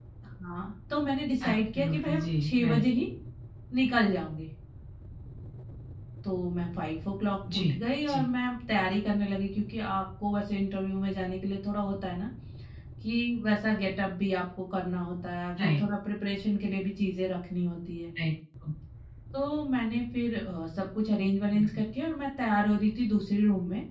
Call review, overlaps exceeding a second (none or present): present